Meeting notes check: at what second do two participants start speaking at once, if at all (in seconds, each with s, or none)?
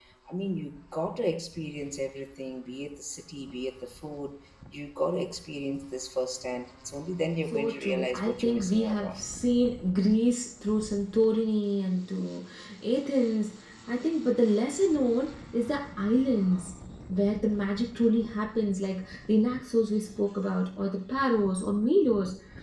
7.5 s